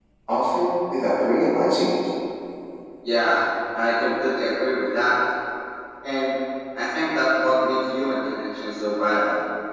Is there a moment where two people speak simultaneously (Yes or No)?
No